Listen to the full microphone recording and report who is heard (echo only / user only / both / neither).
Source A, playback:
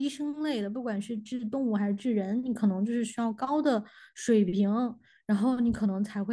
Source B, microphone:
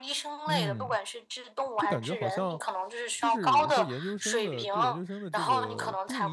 both